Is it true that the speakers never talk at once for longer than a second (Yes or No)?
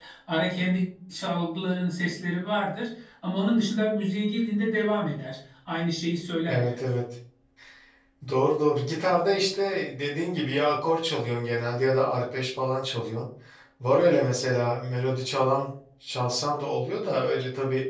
Yes